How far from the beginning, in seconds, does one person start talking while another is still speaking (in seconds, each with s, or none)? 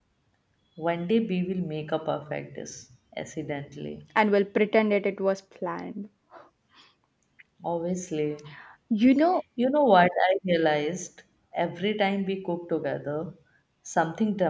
none